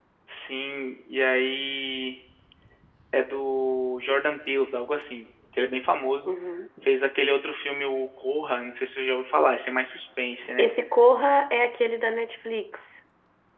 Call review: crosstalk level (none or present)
none